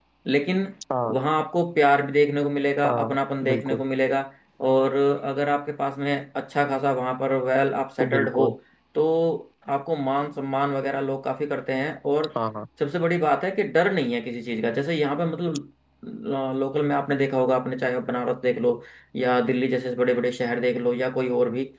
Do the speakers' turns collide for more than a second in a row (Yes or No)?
No